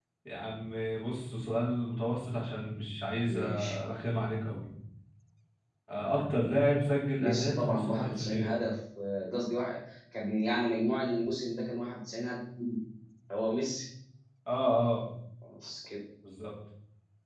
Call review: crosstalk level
present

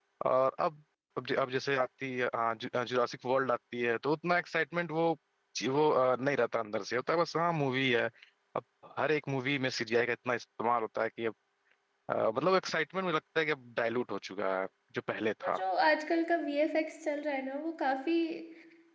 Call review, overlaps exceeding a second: none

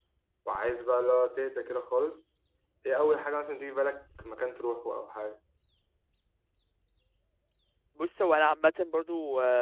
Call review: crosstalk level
none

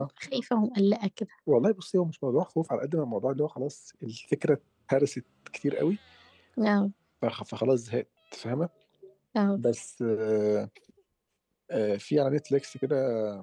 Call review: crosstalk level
none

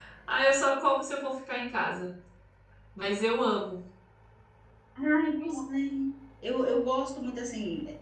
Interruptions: none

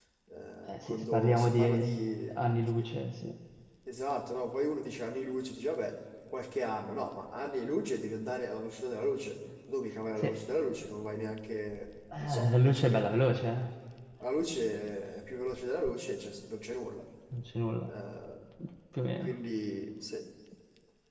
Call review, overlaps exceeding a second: present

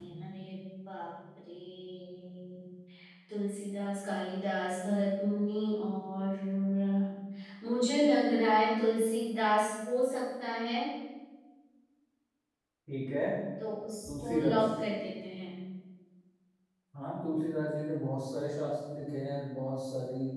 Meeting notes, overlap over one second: none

